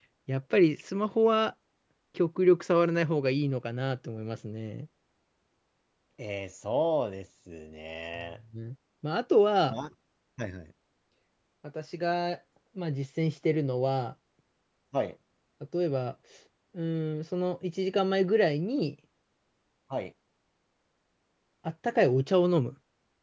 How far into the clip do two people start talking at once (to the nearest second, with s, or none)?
none